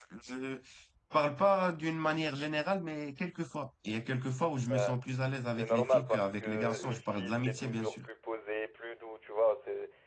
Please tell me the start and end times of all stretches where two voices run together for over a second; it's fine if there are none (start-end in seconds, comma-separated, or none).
5.5-8.1